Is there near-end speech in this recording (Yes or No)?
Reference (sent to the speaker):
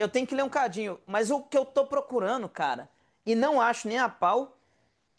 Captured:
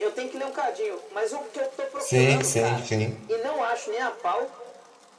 Yes